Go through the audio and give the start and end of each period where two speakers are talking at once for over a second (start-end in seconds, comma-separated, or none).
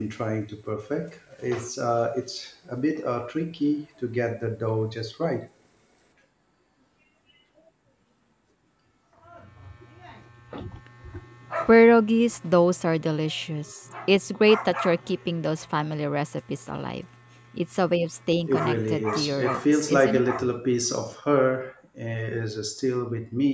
18.5-20.2